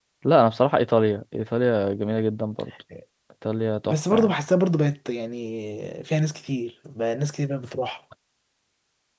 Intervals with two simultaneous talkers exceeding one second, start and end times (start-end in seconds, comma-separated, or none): none